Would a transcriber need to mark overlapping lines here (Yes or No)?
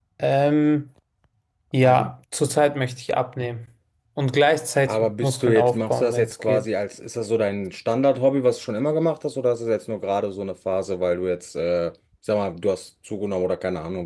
Yes